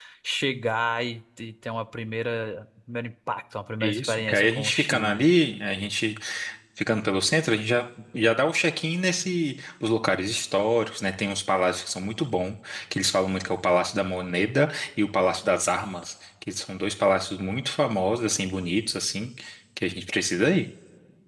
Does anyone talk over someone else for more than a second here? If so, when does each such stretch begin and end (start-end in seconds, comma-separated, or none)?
3.8-5.2